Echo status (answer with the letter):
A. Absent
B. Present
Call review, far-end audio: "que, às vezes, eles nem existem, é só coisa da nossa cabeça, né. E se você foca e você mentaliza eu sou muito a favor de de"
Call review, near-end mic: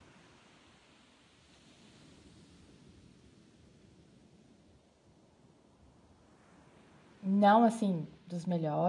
A